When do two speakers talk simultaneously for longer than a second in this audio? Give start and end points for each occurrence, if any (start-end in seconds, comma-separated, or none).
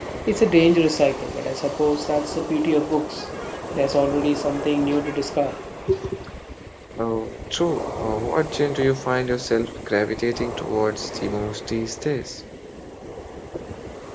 none